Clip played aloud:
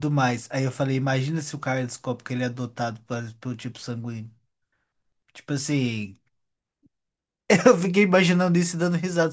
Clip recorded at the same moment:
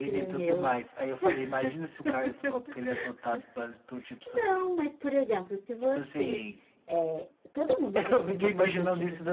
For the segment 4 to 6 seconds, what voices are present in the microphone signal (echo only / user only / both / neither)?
both